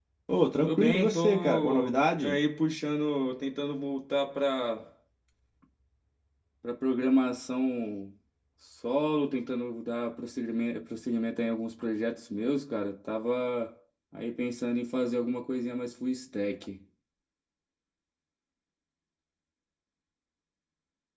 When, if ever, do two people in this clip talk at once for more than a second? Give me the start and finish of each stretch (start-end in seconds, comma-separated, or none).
0.6-2.4